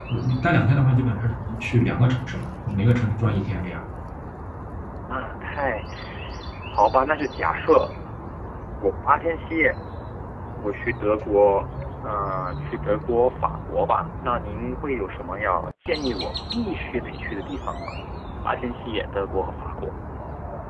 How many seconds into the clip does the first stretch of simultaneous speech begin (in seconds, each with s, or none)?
none